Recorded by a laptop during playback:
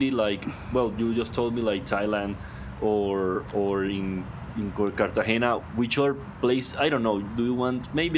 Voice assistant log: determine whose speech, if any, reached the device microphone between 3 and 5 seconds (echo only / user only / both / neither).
user only